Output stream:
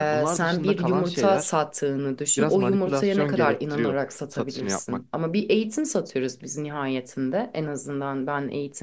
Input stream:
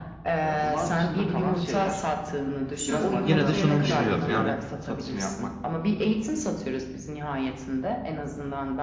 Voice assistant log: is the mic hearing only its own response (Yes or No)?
No